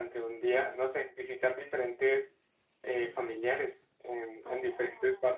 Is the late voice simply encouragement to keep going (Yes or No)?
No